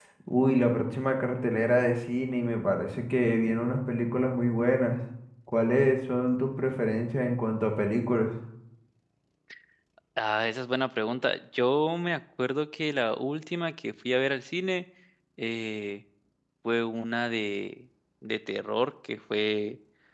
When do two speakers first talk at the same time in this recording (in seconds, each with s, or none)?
none